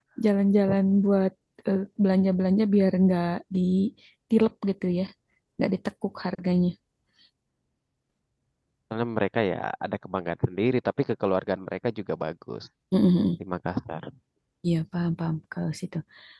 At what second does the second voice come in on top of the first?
none

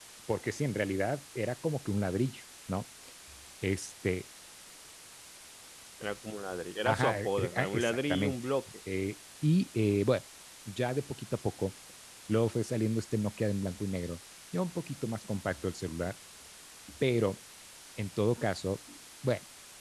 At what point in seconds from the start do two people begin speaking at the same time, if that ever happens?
6.8 s

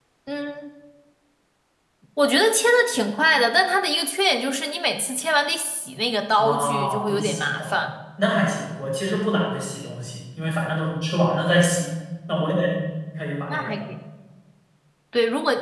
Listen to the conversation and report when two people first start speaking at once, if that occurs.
6.4 s

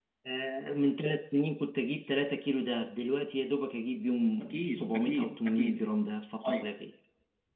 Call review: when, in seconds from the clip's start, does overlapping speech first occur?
4.5 s

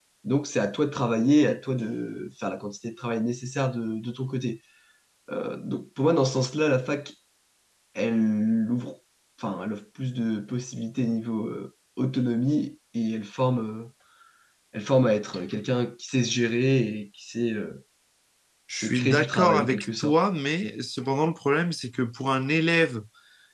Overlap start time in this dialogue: 18.7 s

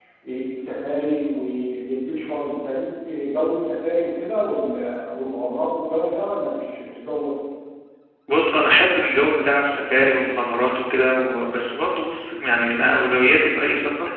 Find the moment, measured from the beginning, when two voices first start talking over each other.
none

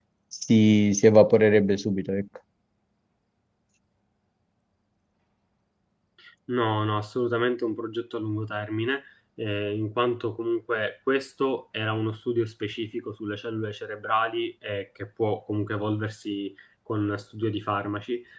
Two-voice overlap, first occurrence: none

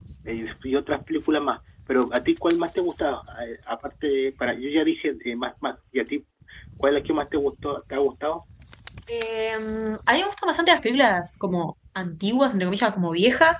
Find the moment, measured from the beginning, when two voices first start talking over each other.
none

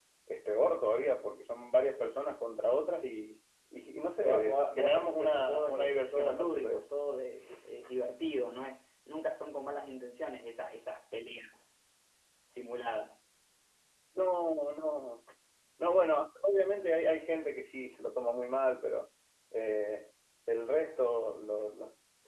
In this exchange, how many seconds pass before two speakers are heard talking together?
4.2 s

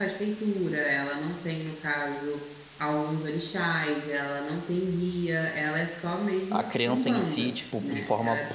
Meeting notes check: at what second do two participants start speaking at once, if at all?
6.5 s

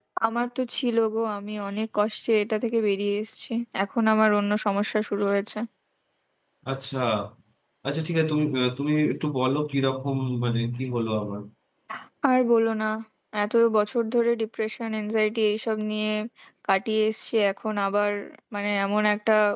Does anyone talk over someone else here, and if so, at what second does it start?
none

